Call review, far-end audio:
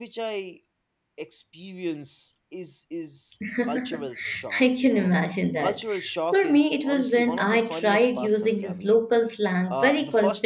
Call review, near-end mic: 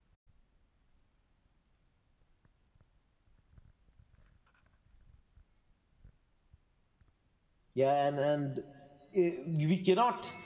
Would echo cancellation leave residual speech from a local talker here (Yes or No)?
Yes